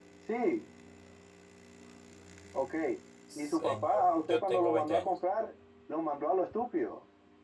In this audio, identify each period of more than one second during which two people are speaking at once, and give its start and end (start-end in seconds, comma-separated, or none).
3.4-5.1